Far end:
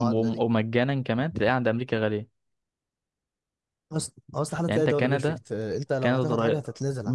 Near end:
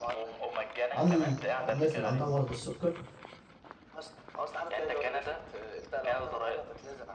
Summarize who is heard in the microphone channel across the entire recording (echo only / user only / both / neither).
both